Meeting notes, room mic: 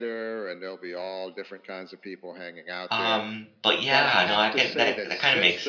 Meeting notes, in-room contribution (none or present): present